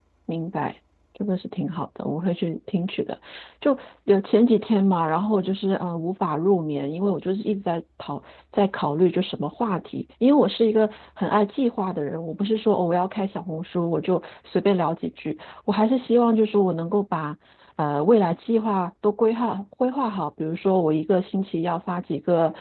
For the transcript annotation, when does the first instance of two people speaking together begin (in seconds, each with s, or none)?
none